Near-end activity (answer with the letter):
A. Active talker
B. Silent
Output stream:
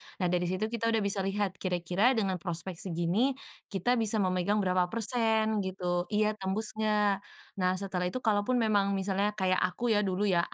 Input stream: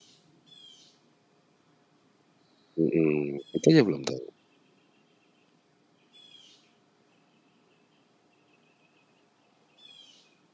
A